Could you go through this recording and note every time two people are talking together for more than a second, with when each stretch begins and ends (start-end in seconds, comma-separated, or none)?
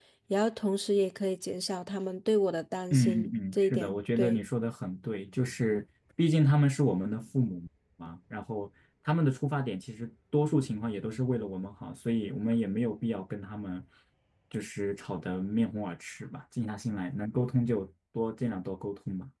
2.9-4.4